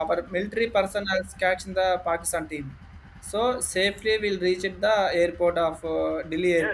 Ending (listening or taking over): taking over